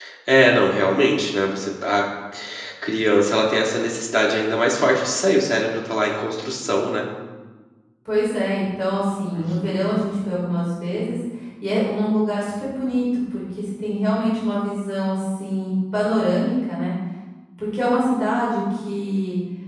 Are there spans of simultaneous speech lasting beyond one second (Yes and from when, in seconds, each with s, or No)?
No